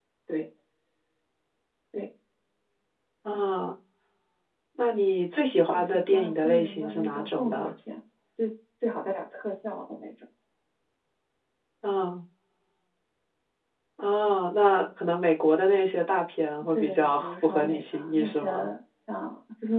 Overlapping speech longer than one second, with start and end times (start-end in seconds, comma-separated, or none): 5.7-7.7, 16.7-18.5